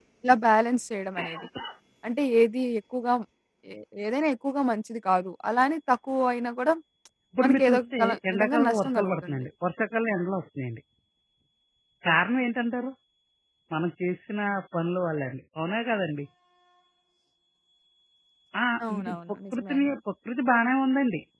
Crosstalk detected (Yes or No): Yes